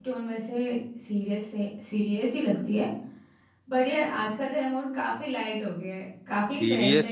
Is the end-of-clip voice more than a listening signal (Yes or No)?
Yes